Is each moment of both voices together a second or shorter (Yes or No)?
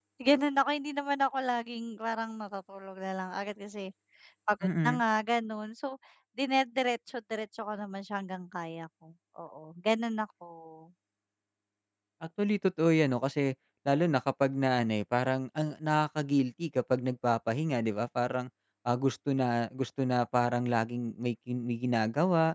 Yes